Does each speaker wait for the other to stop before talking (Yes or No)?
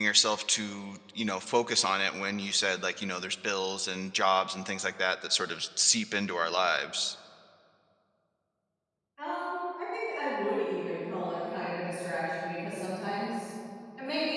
Yes